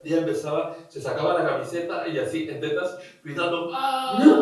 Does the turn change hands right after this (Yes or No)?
No